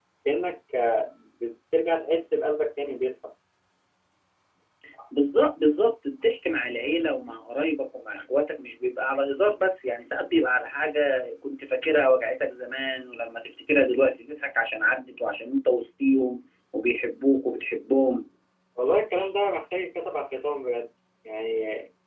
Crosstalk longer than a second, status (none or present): none